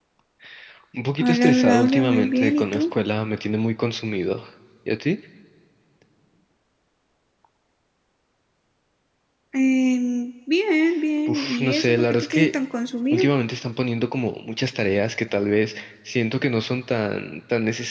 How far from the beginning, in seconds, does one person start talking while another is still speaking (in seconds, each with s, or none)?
1.2 s